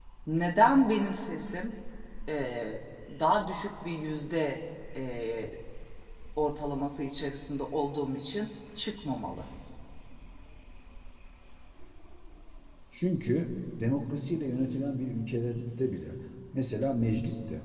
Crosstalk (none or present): none